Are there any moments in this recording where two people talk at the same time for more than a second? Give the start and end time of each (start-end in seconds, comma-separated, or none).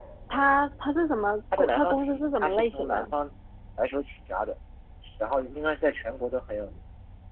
1.6-3.1